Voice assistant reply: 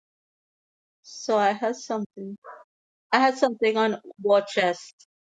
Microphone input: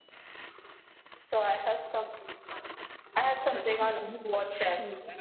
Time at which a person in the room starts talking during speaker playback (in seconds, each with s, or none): 3.5 s